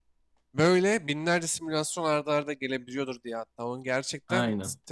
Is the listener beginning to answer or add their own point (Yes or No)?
No